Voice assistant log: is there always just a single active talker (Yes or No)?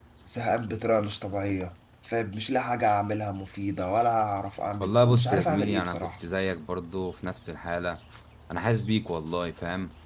No